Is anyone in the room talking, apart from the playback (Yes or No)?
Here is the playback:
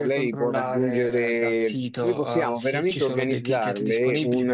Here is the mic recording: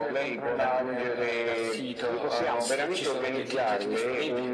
No